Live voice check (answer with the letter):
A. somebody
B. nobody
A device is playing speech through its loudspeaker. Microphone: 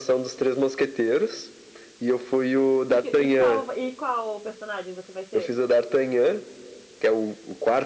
A